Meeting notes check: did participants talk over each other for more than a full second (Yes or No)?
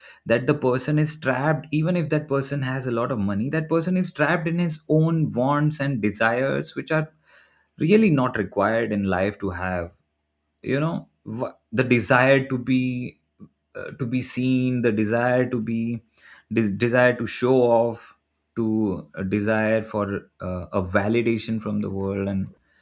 No